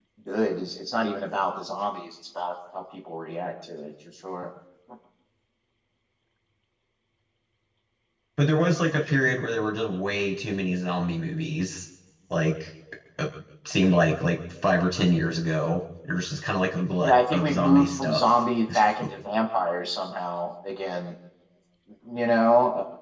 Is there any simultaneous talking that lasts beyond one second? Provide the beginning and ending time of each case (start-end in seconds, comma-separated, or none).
17.0-18.2